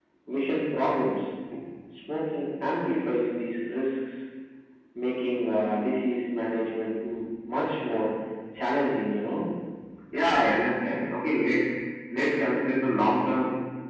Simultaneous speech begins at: none

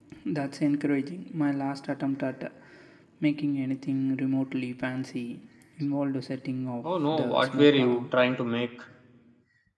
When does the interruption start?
6.8 s

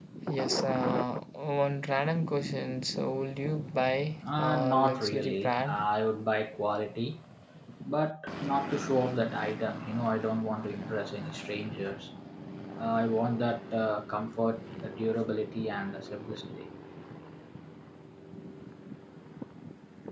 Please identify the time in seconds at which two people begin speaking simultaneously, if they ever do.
4.2 s

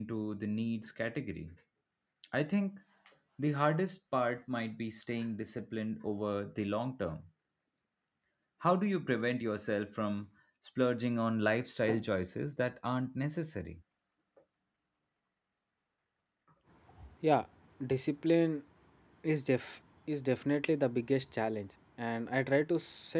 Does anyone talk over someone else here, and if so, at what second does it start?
none

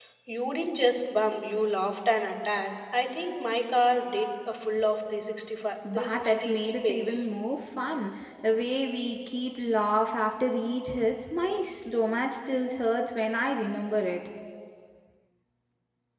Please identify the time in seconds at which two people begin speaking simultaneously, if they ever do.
5.8 s

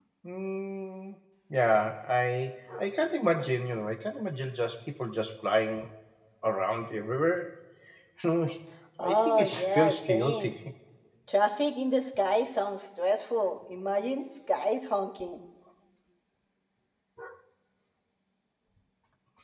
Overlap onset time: 9.0 s

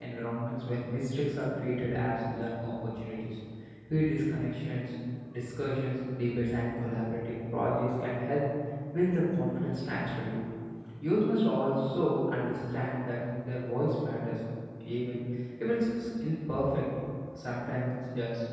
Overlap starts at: none

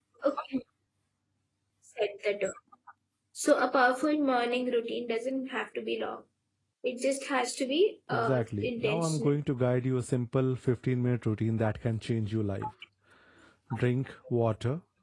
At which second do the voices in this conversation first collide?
8.1 s

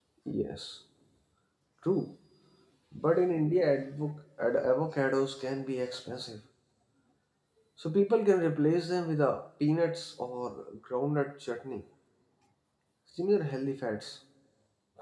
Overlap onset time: none

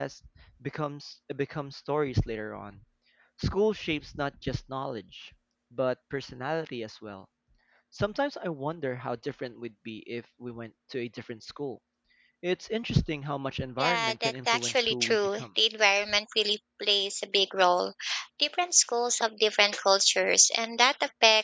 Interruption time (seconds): 13.8 s

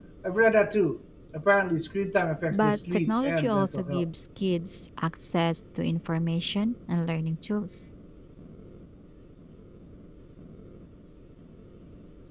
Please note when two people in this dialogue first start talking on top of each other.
2.5 s

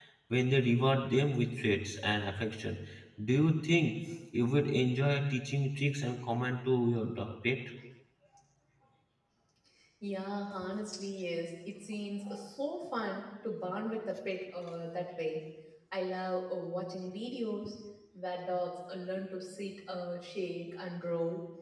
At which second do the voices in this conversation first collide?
none

